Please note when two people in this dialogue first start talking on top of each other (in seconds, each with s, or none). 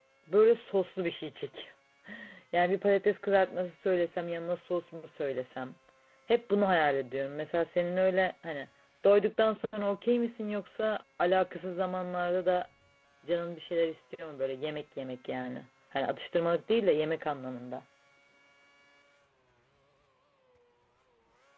none